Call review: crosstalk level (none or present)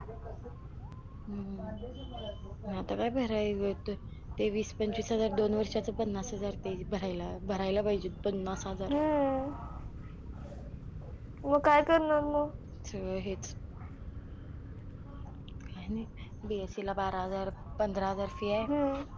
none